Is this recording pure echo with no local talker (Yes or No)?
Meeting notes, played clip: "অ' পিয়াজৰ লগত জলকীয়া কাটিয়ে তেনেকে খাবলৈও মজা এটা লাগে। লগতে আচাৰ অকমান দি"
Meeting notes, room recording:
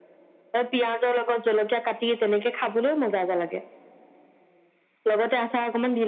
Yes